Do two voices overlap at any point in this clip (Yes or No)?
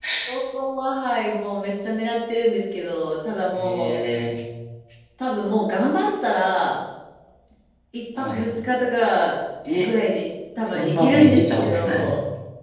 Yes